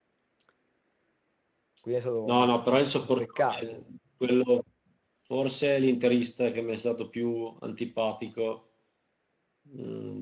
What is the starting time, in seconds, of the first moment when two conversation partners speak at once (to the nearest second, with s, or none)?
2 s